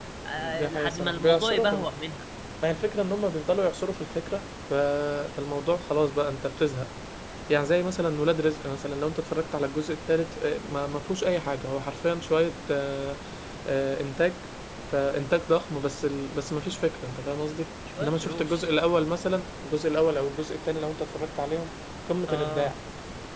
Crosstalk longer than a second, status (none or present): present